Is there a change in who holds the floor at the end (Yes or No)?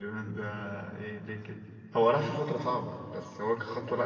Yes